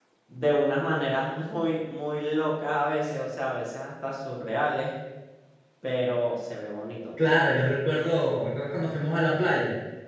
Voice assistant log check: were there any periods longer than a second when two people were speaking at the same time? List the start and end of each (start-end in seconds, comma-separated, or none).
none